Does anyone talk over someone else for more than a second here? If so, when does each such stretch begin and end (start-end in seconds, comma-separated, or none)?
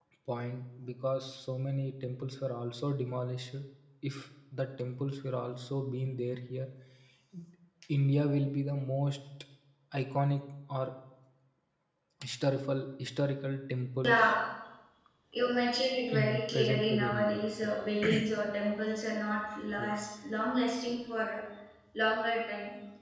16.2-17.8